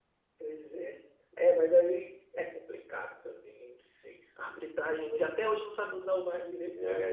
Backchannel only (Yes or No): Yes